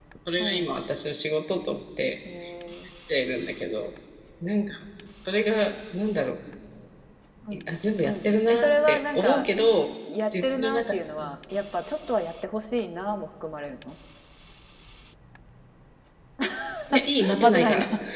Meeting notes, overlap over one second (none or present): present